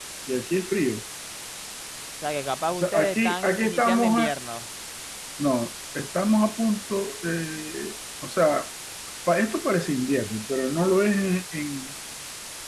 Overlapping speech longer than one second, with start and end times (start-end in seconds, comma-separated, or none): 2.7-4.3